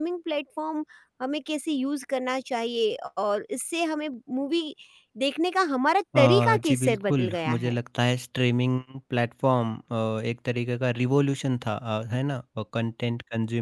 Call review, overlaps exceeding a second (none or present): present